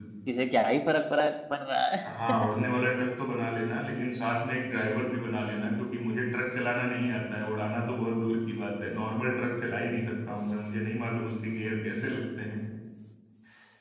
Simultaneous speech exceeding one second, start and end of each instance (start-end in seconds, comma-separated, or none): none